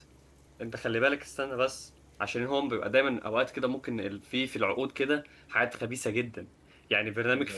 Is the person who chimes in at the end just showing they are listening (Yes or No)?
Yes